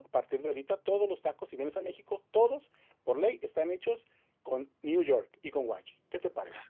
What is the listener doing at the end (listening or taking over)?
taking over